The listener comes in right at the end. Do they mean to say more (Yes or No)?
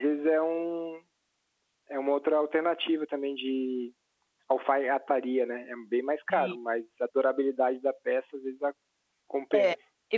Yes